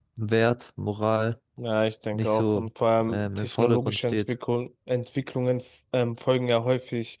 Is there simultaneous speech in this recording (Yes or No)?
Yes